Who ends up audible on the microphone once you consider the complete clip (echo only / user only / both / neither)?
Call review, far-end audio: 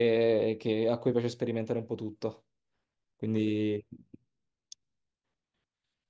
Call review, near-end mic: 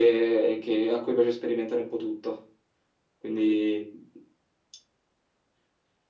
echo only